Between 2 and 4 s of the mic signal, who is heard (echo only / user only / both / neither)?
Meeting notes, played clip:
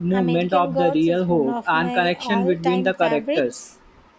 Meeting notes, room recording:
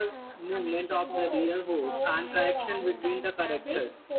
both